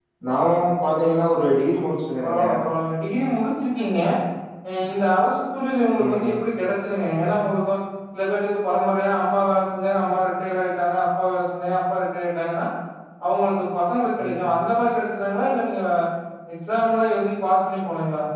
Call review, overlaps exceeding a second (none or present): none